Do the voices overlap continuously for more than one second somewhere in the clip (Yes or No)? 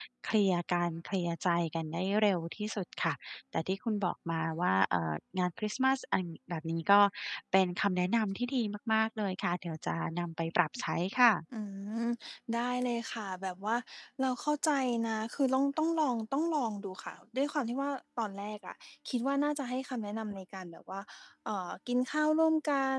No